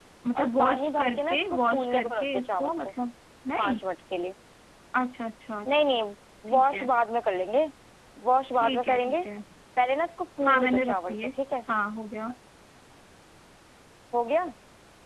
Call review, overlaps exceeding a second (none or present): present